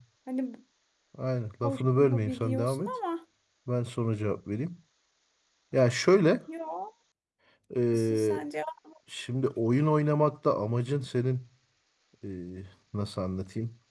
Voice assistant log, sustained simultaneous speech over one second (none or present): present